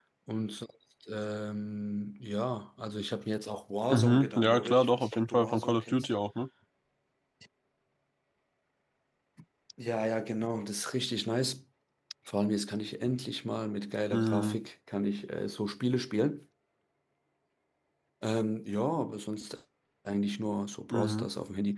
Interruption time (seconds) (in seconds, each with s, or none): 3.9 s